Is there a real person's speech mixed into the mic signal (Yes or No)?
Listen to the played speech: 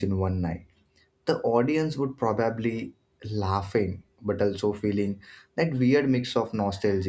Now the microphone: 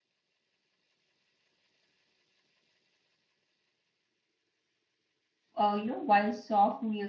Yes